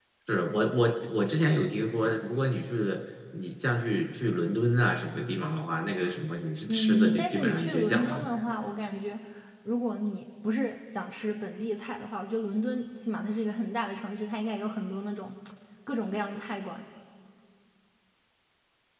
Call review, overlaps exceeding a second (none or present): present